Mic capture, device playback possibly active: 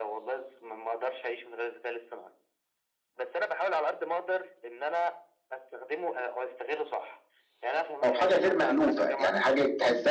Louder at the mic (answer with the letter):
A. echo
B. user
B